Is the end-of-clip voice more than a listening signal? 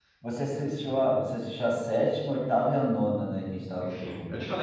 Yes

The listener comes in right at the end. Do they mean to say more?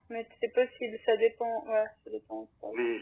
Yes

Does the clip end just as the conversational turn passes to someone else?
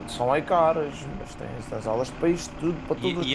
Yes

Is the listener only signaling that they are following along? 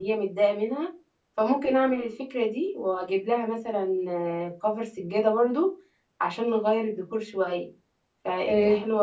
No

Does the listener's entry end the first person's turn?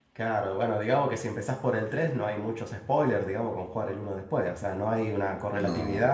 No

